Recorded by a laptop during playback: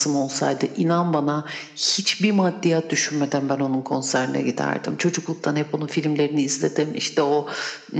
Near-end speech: none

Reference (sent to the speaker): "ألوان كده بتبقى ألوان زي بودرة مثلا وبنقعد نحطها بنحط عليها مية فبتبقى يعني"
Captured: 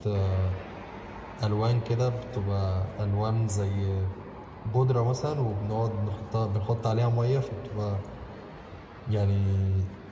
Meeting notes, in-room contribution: none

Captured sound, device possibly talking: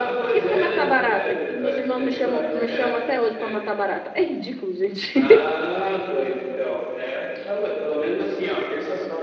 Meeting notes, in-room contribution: present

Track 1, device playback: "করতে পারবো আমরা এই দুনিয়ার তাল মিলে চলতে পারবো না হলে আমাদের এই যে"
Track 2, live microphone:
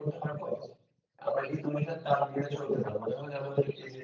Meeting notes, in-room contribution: none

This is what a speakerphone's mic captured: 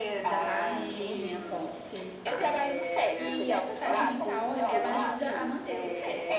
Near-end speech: present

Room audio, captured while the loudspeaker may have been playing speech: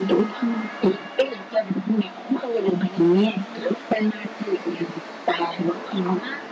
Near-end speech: none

